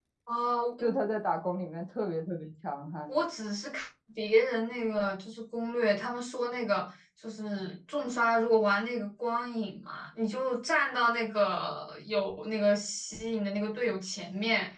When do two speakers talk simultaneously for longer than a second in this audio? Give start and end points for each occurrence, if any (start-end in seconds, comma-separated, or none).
none